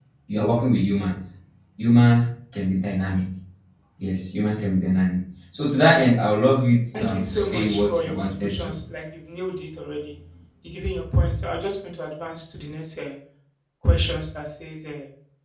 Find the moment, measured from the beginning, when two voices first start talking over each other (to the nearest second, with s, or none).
7 s